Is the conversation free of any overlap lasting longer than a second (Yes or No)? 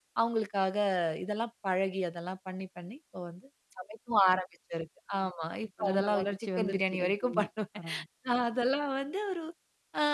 No